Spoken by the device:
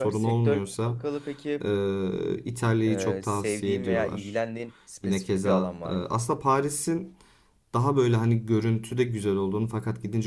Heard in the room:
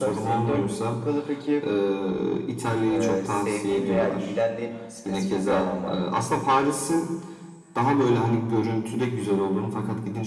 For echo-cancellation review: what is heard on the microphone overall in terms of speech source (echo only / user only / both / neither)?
echo only